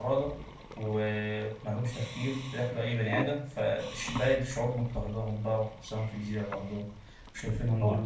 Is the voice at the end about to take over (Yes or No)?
No